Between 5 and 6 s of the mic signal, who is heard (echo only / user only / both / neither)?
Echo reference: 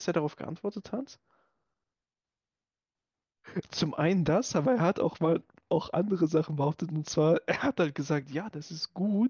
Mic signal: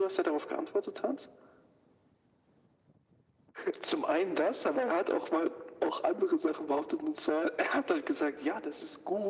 echo only